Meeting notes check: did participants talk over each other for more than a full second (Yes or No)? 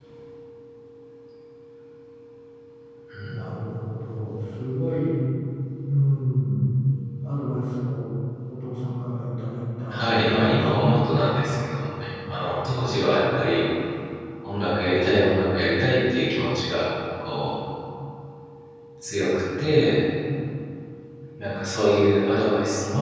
Yes